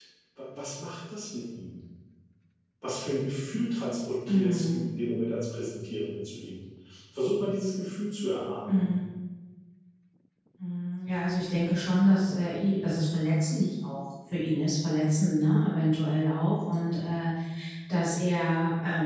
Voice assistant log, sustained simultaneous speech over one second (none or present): none